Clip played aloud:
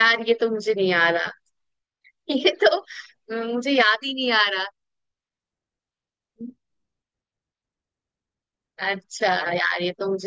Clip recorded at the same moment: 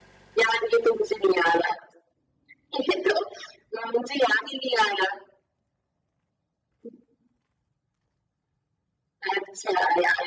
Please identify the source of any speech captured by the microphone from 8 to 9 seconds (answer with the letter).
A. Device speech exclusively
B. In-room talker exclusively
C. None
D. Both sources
C